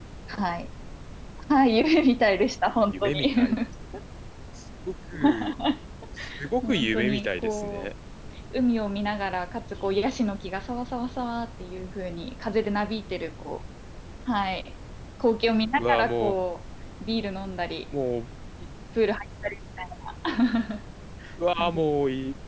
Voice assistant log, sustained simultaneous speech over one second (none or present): present